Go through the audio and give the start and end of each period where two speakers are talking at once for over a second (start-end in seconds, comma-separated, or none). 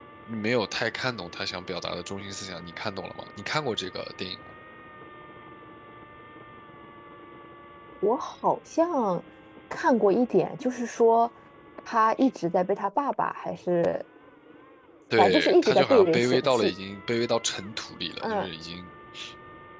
15.2-16.7